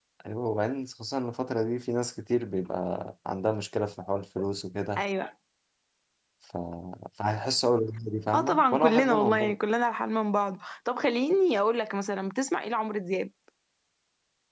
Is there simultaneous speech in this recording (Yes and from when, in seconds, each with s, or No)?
Yes, from 8.3 s